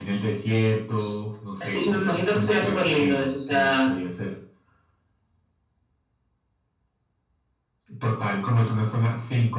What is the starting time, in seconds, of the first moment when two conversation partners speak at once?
1.6 s

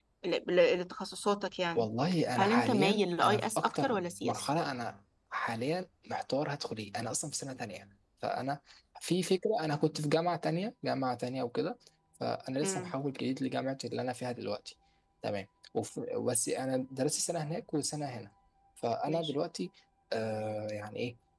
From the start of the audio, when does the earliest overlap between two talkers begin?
2.4 s

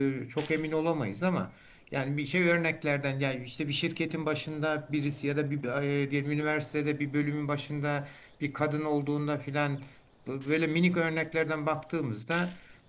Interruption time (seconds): none

